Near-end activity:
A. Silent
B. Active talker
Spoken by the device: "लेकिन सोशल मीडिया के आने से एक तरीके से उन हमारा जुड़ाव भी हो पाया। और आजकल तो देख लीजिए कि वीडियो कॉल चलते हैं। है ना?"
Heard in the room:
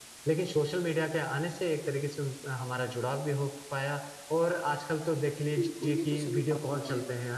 B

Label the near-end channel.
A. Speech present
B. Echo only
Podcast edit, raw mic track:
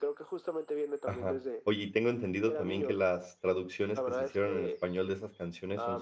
A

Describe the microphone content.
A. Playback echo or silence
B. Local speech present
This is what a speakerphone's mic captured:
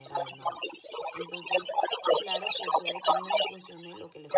B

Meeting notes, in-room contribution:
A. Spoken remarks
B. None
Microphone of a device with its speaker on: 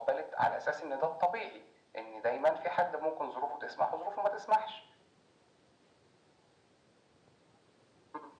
B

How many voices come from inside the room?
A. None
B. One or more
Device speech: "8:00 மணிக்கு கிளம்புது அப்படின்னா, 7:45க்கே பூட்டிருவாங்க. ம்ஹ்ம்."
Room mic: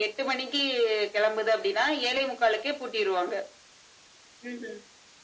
A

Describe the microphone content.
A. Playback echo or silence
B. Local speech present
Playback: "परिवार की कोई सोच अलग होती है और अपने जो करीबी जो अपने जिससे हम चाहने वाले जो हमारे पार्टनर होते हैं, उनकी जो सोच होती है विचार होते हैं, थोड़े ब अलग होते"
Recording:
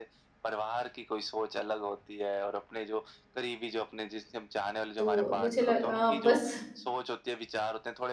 B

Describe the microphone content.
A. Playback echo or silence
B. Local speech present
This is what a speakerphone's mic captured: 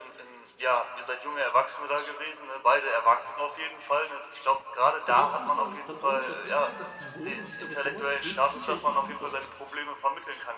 B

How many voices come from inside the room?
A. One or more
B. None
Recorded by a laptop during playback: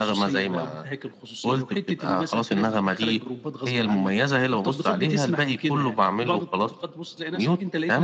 B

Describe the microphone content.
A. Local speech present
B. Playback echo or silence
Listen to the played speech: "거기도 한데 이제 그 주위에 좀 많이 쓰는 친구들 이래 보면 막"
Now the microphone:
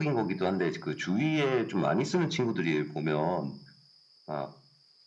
B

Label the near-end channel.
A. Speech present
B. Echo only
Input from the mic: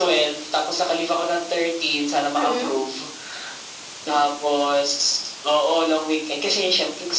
A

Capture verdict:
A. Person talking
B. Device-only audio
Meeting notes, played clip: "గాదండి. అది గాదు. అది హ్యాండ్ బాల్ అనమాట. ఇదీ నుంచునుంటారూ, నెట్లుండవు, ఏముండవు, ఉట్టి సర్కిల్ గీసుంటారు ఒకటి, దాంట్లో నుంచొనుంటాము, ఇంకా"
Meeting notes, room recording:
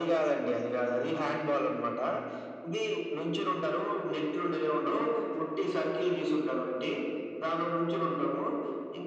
B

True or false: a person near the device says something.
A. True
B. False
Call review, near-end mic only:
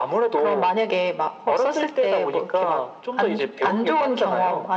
B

